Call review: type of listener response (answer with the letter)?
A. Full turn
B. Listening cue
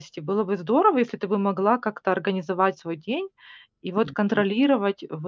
B